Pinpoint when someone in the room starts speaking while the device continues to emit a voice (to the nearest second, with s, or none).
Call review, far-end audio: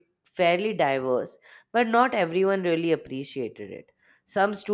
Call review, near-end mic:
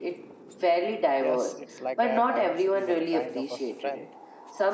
1 s